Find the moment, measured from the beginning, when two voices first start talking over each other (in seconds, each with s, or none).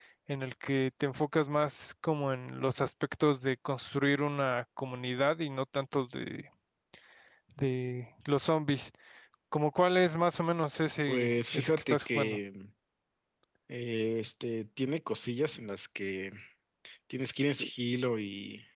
11.1 s